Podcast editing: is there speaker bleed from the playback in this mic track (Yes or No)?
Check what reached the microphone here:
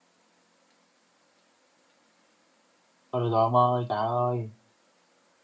No